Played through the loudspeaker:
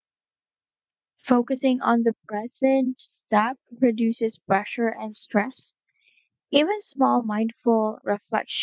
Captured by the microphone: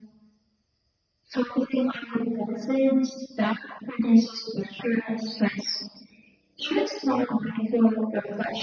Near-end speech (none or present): none